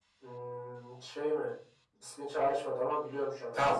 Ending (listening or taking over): taking over